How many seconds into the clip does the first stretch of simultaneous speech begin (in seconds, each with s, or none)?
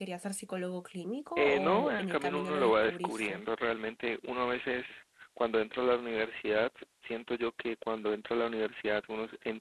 1.4 s